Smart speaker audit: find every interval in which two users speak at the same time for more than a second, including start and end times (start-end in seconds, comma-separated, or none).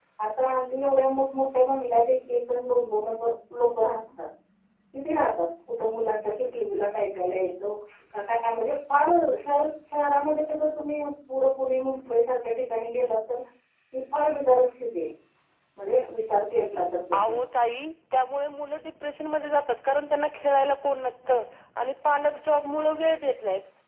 none